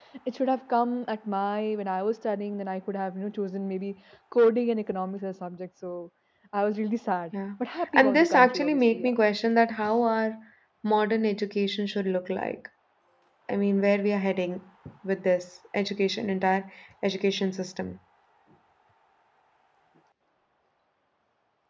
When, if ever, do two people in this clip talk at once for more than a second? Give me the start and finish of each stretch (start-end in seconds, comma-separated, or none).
7.9-9.1